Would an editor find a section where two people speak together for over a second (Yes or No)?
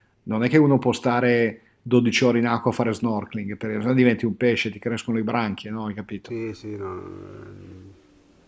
No